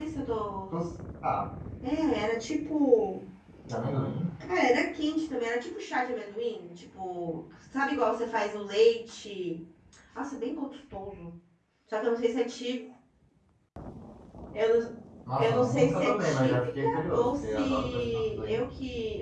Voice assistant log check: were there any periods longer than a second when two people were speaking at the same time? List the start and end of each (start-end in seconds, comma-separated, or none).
15.4-18.6